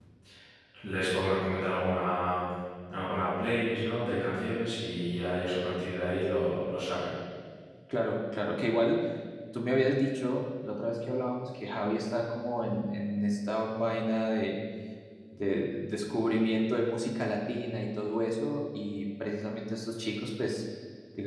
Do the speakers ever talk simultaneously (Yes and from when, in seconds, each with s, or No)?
No